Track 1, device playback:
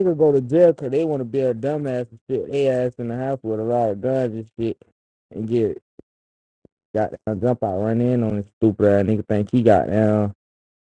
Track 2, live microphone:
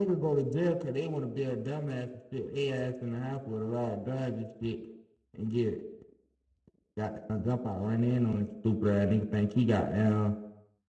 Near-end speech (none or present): none